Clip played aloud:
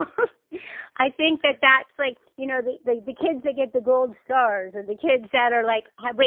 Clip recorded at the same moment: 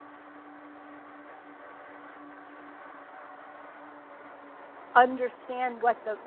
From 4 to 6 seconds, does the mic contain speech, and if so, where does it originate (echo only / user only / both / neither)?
user only